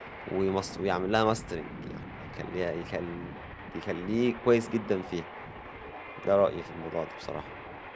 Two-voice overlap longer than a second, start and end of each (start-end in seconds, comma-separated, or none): none